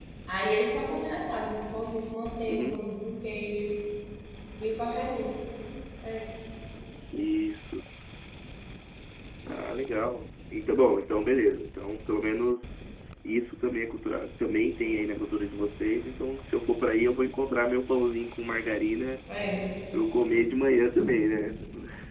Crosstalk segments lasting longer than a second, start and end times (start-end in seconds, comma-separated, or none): none